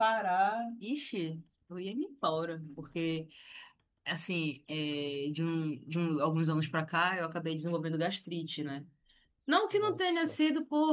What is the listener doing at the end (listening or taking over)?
listening